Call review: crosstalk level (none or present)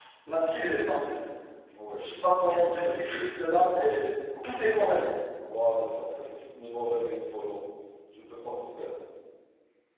present